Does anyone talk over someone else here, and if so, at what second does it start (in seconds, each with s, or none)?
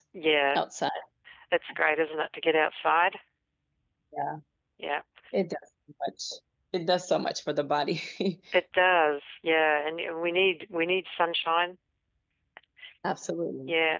none